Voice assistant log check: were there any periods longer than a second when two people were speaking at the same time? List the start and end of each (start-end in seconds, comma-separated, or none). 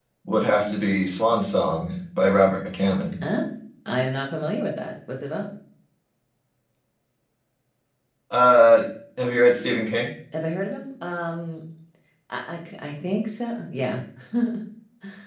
none